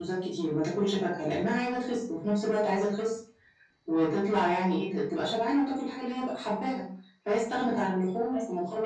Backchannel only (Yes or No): Yes